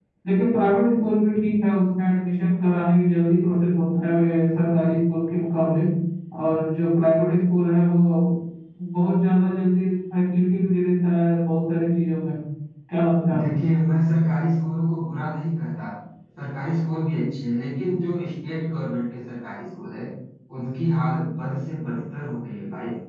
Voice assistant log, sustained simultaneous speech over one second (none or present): none